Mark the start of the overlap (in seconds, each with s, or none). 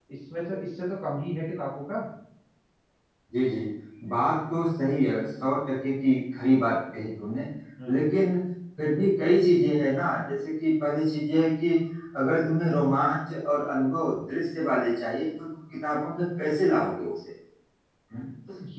none